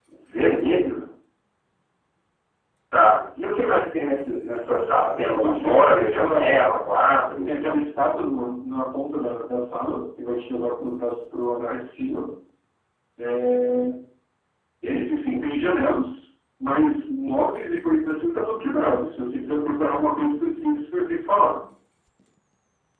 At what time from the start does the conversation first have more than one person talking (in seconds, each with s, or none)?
5.3 s